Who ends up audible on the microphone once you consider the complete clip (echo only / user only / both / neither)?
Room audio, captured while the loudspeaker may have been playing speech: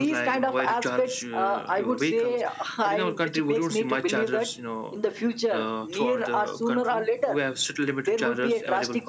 echo only